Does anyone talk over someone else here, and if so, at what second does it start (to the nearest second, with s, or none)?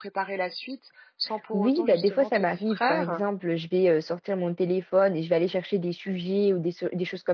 2 s